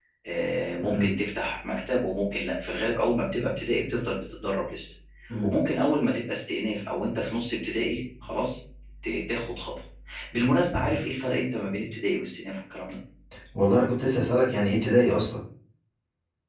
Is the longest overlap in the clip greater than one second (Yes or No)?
No